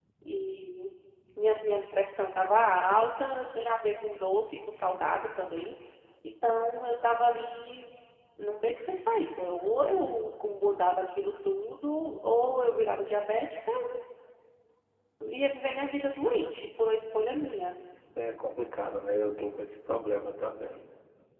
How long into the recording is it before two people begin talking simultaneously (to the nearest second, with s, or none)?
none